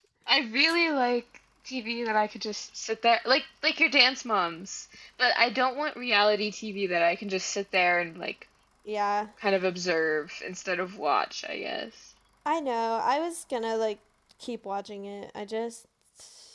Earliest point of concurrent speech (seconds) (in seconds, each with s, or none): none